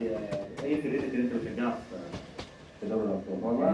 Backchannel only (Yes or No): No